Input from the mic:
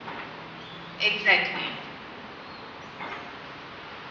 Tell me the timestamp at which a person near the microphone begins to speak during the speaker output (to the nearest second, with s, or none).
1 s